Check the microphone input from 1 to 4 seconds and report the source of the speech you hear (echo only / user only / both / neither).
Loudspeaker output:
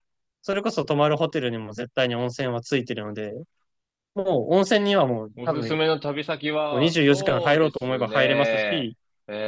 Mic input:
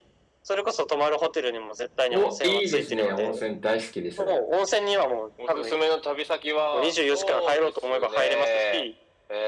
both